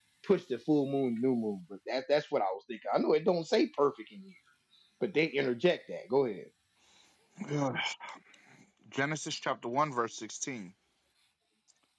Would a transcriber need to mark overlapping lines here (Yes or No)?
No